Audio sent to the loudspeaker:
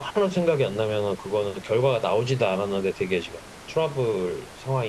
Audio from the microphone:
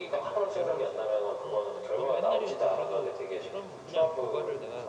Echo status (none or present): present